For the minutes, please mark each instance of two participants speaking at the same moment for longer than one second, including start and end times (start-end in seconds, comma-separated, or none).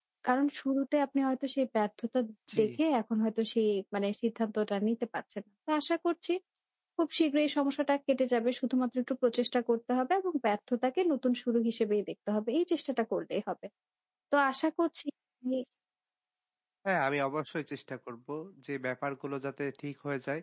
none